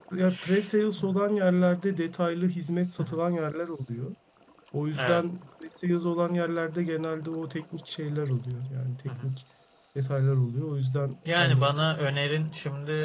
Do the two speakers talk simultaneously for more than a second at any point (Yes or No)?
No